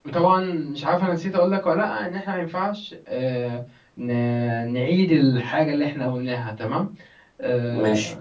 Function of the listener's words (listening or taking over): listening